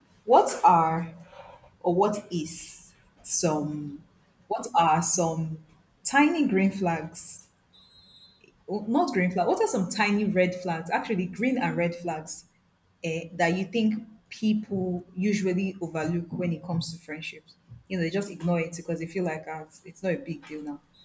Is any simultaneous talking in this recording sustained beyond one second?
No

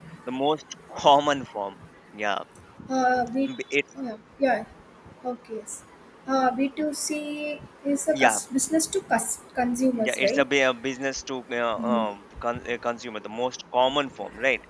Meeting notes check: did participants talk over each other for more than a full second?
No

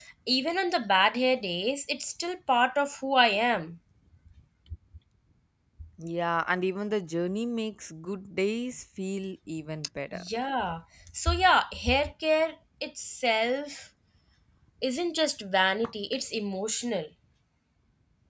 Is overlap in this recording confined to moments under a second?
Yes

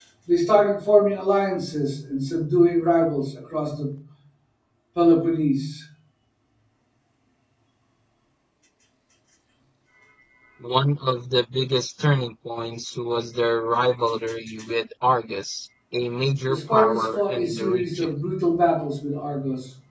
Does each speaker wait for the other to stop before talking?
No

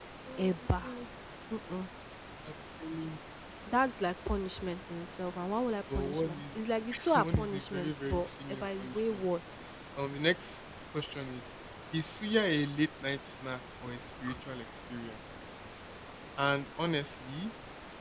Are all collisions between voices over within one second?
No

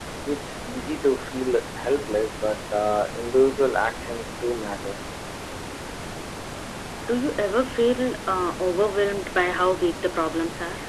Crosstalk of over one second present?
No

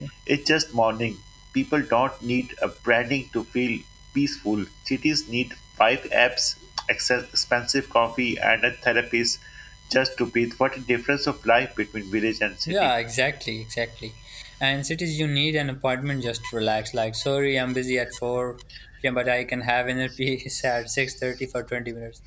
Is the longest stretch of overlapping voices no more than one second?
Yes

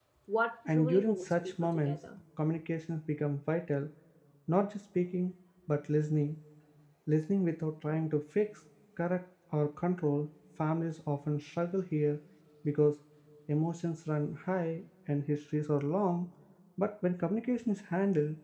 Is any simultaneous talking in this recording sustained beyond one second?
Yes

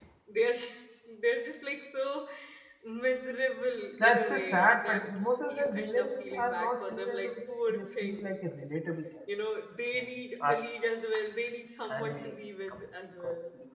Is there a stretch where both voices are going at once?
Yes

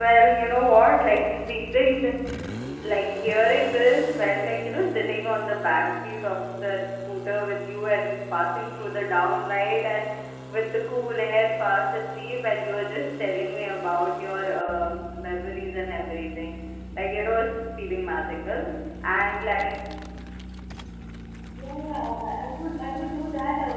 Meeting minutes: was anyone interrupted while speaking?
No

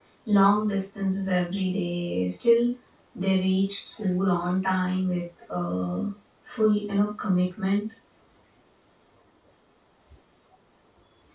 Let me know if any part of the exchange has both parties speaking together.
No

